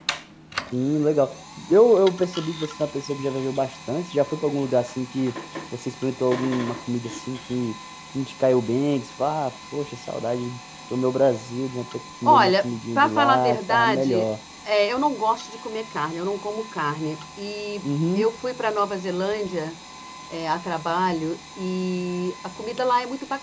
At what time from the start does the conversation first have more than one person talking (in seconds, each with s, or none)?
12.2 s